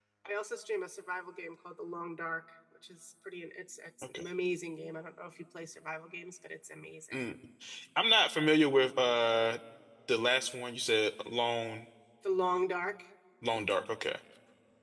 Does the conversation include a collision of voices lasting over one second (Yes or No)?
No